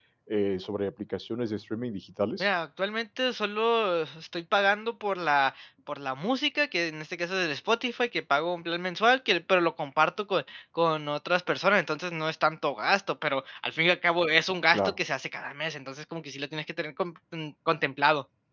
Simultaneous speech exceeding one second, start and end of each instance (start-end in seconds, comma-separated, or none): none